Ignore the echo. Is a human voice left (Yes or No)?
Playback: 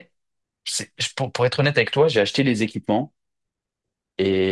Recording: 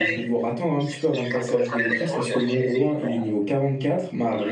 Yes